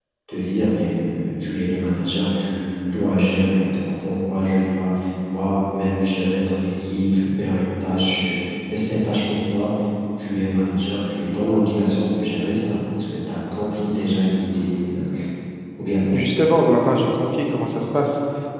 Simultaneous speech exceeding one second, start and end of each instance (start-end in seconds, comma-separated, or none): none